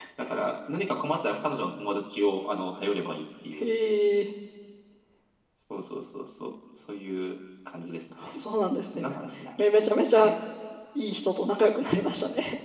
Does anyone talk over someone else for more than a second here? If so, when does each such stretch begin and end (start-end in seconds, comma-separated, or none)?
none